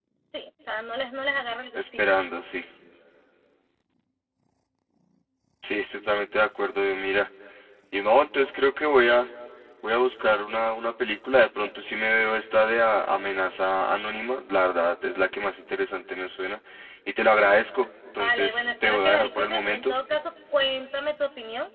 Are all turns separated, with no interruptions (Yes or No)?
No